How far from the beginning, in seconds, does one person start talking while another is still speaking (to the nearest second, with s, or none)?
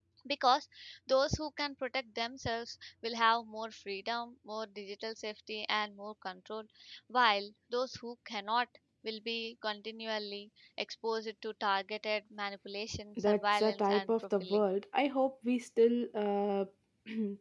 13 s